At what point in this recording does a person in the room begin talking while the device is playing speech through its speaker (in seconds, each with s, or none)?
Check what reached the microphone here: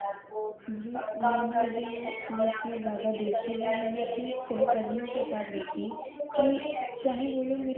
0.7 s